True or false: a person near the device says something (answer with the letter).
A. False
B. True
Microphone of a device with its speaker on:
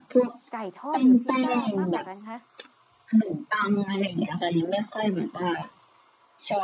B